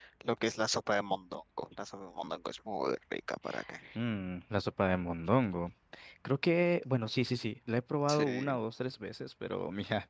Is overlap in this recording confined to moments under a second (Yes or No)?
Yes